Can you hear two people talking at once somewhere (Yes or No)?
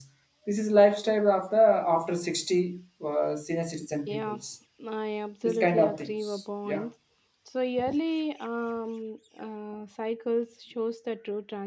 Yes